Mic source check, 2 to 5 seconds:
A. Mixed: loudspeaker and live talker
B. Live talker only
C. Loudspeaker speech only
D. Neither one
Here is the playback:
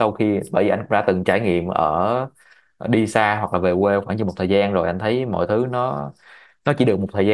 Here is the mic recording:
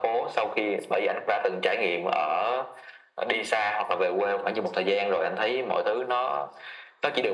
C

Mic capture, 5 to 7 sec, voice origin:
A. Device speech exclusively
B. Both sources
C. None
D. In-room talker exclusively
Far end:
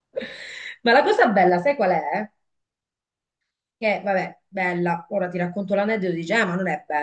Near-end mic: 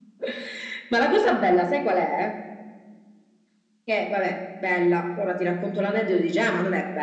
A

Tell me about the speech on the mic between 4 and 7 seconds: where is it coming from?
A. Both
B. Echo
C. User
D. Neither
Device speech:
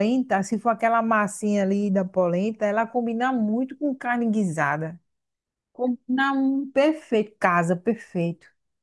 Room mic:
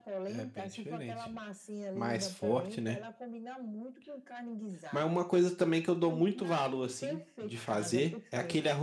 A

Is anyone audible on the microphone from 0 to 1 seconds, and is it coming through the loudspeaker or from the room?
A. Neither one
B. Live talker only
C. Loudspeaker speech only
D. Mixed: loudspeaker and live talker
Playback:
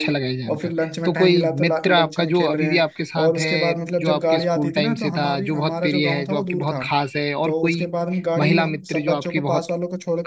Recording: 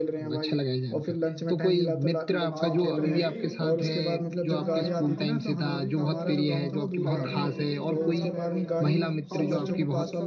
C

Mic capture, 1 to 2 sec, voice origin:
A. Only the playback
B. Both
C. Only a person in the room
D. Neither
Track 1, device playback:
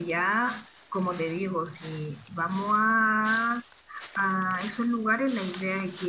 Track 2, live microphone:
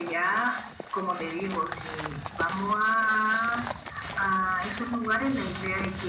A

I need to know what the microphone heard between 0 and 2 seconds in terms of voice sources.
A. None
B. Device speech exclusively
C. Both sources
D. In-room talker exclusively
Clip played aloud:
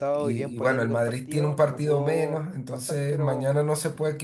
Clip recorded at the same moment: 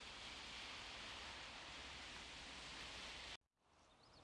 A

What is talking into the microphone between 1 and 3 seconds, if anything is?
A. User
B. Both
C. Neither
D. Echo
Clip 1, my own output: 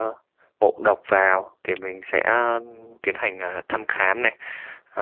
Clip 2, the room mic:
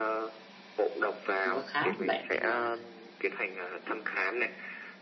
B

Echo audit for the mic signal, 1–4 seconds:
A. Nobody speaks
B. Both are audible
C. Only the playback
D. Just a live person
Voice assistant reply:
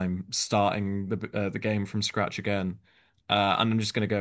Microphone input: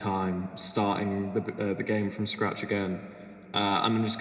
C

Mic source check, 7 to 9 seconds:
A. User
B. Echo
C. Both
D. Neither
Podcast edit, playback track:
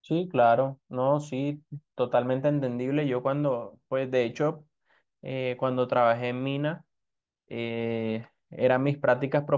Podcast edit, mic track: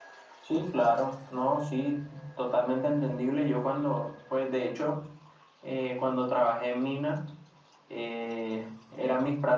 B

